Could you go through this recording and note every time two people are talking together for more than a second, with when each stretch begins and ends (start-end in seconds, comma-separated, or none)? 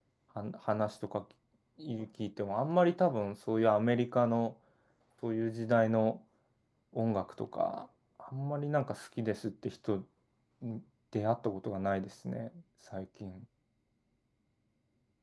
none